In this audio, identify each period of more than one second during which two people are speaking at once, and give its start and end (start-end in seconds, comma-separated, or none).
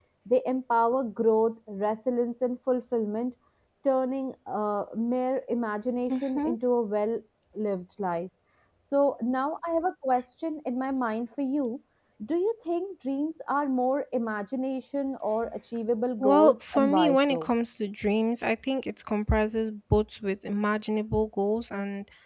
16.2-17.5